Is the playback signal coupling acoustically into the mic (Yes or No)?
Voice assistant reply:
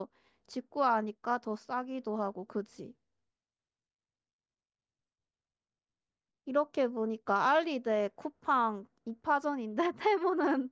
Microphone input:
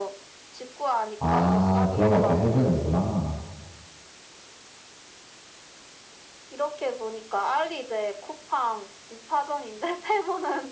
Yes